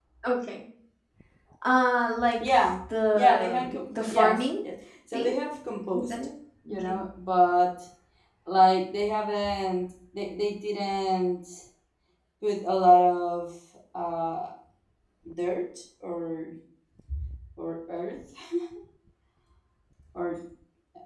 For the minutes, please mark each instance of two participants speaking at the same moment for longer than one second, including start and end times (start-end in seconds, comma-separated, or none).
3.1-4.5